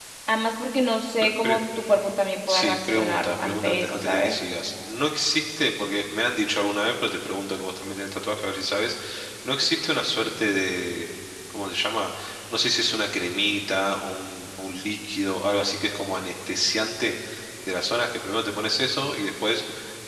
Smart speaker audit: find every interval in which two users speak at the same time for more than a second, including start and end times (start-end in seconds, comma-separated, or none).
2.5-4.4